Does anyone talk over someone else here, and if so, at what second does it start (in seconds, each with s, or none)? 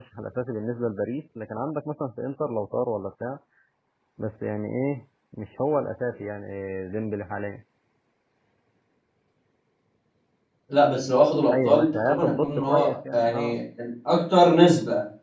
11.5 s